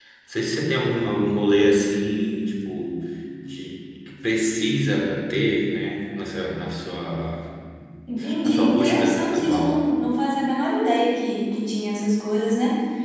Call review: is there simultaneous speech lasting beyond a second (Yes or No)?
Yes